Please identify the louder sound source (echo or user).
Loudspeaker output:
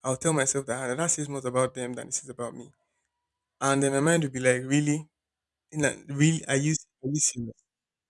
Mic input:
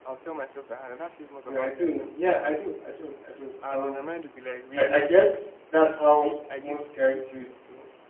user